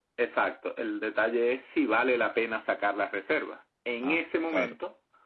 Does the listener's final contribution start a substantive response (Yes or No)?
No